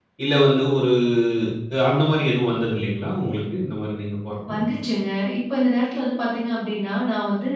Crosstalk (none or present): none